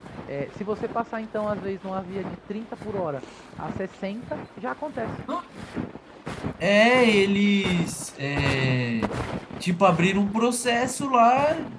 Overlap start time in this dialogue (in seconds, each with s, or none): none